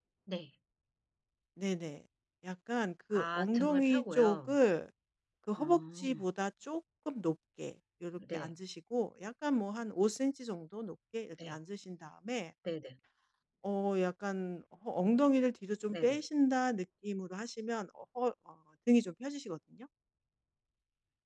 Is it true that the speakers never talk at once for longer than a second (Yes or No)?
No